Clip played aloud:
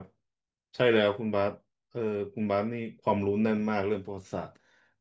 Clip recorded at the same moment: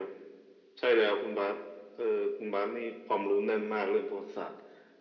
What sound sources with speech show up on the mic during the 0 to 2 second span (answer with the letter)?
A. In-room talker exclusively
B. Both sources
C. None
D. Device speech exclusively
D